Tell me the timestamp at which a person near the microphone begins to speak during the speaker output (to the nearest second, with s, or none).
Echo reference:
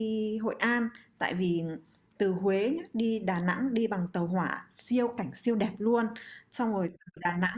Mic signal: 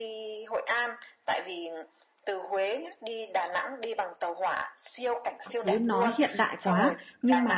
5 s